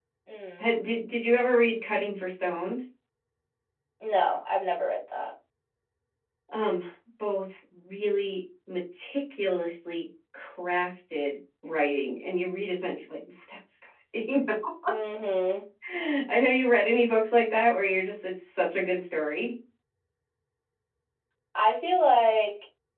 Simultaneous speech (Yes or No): No